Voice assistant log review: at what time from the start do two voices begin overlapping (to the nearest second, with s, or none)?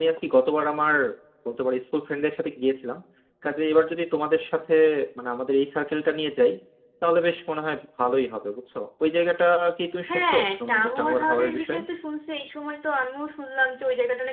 10 s